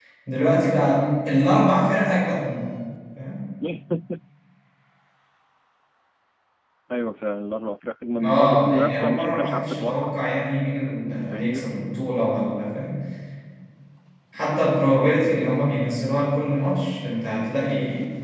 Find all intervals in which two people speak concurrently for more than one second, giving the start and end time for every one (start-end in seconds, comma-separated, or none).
8.2-10.2